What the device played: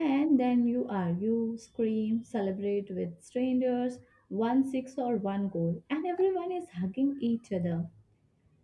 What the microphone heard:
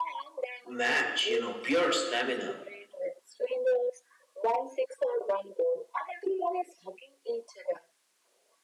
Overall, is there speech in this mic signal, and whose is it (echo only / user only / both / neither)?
both